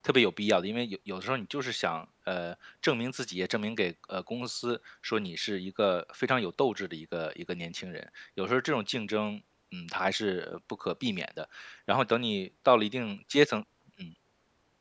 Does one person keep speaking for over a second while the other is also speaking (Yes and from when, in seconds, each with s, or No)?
No